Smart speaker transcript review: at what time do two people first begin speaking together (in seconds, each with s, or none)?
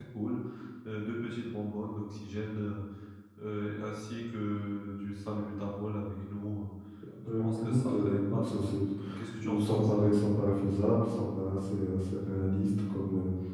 7.4 s